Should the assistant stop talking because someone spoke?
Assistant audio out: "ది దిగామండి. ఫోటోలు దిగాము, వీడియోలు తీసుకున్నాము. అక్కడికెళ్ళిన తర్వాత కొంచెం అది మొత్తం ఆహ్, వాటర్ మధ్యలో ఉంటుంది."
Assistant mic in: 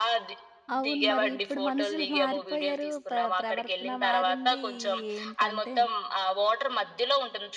Yes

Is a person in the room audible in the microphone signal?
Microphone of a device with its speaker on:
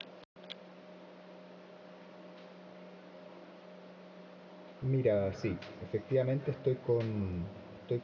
Yes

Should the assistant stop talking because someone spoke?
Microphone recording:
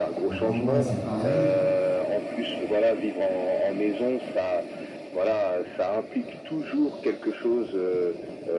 Yes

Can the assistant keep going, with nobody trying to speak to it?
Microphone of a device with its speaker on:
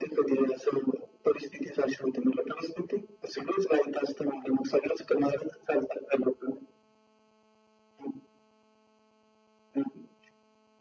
Yes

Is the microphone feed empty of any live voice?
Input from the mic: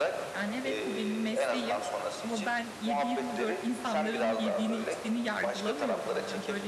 No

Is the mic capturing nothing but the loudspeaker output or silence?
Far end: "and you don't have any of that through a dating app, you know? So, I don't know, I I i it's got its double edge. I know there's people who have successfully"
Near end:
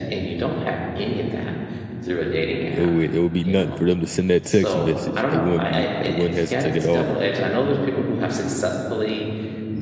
No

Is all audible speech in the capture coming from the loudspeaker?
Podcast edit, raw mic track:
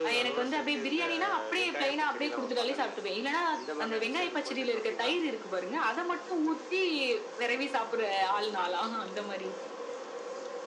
Yes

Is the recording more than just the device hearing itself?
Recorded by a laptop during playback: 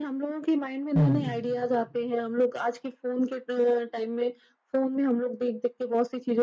Yes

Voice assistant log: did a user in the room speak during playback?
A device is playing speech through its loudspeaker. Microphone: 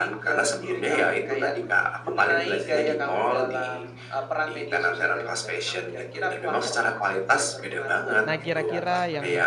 Yes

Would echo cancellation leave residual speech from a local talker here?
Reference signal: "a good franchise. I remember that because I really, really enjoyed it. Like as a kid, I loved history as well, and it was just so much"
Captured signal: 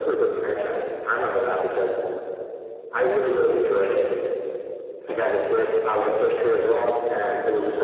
No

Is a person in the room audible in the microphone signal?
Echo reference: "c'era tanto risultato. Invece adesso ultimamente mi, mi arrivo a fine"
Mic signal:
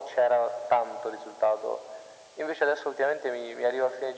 No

